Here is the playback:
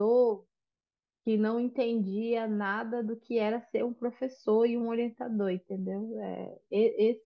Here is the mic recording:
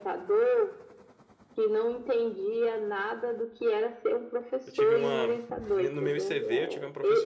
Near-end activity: present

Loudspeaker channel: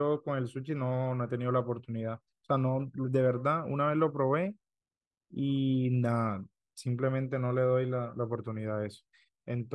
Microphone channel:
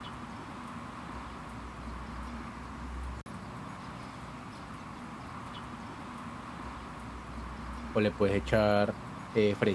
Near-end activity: present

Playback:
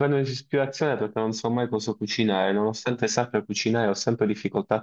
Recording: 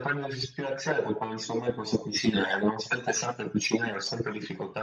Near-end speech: none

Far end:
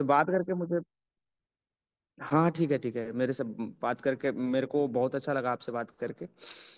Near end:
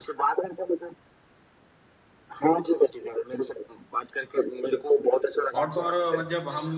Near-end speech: present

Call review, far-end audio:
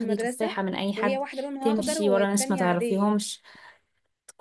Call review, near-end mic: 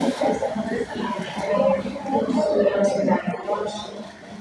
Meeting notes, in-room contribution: none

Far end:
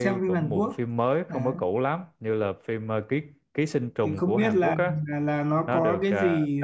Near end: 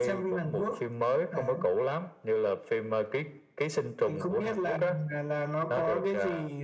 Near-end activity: none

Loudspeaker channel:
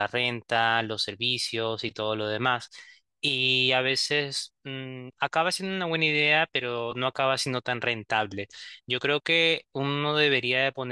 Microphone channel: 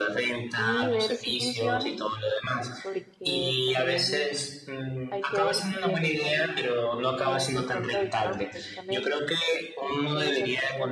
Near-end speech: present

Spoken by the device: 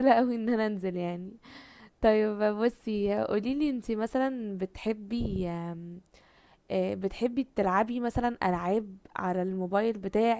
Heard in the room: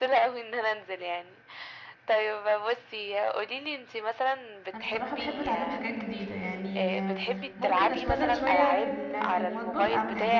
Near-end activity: present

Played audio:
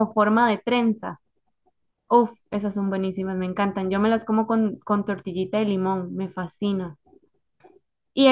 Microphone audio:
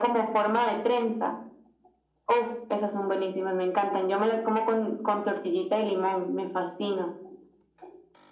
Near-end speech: none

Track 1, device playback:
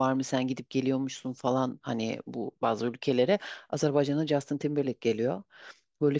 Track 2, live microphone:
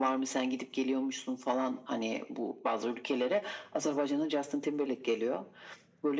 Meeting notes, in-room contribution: none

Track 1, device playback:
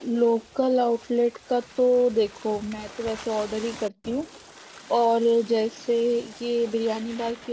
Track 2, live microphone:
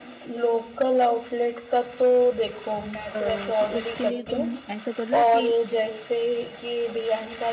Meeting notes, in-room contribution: present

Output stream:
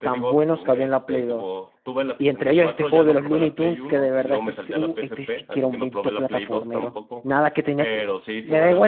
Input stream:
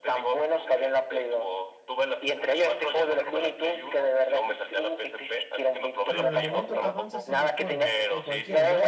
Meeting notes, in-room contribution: present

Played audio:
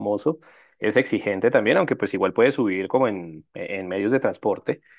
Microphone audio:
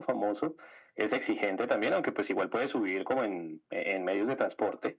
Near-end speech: none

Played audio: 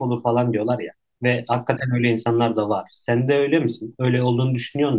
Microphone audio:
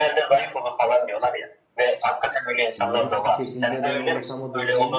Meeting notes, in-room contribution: present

